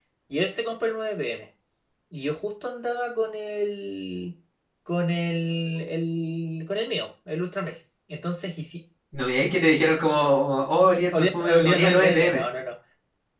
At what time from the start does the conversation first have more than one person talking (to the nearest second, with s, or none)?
11 s